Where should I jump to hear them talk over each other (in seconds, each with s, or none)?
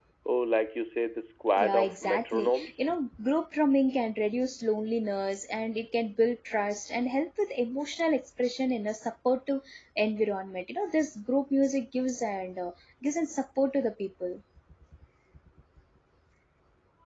1.6 s